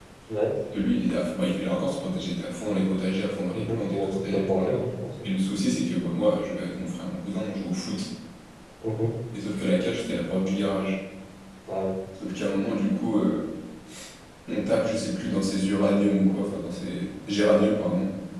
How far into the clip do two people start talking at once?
3.5 s

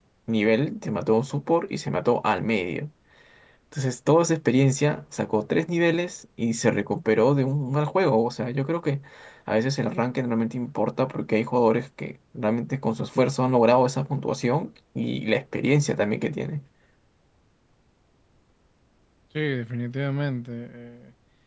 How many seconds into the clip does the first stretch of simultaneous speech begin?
none

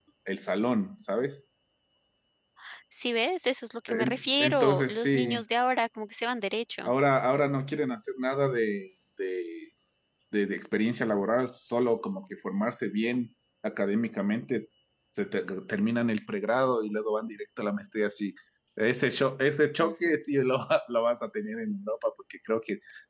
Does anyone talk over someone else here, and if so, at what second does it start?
3.9 s

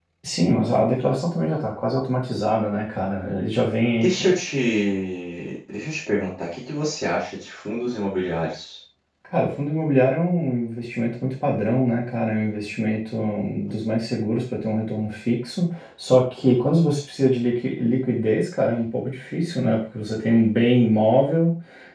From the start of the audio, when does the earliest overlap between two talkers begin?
none

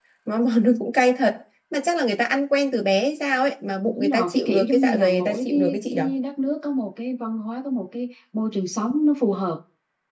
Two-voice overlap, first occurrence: 3.9 s

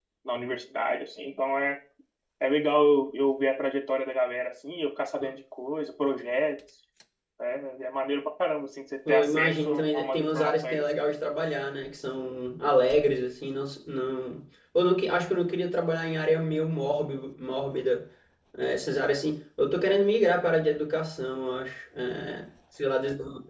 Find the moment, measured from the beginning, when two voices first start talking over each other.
9.1 s

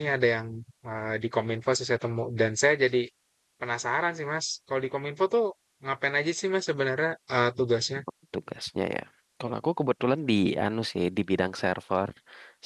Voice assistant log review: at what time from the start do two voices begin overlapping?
none

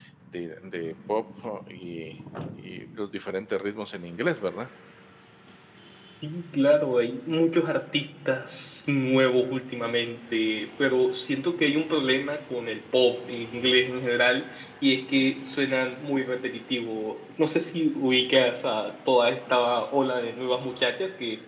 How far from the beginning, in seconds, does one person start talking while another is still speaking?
none

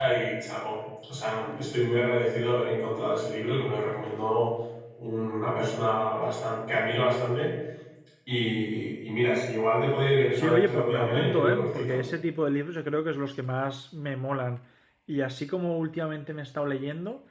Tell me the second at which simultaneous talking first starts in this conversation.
10.3 s

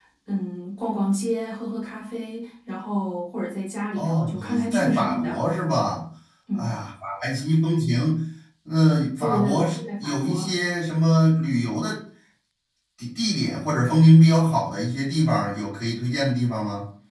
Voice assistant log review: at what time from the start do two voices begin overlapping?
4.0 s

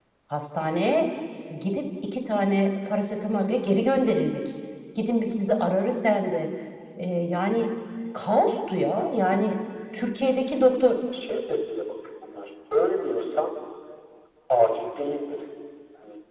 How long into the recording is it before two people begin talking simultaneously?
none

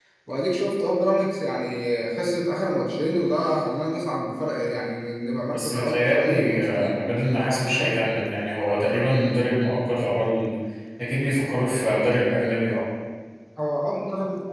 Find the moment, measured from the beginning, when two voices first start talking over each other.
5.5 s

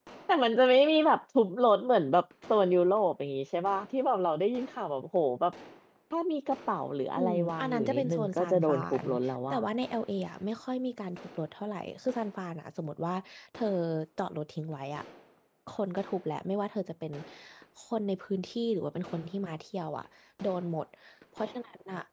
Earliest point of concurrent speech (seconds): 7.2 s

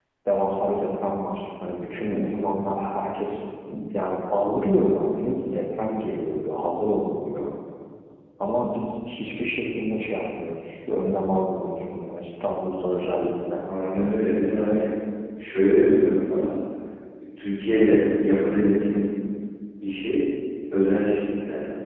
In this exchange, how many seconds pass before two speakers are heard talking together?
none

